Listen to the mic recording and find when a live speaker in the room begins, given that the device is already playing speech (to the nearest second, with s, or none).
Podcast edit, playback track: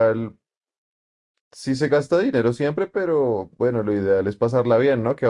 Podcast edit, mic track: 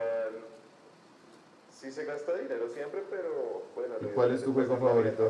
4 s